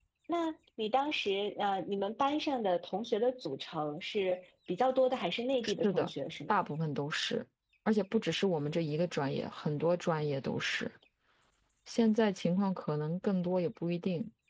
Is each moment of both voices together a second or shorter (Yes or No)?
Yes